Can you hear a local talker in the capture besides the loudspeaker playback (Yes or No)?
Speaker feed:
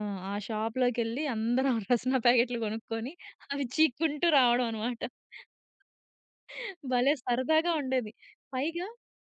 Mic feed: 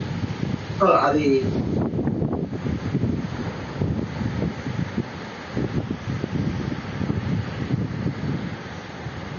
Yes